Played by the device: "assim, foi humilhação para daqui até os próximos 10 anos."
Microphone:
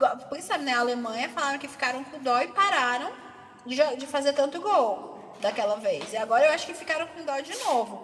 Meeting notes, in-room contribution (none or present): present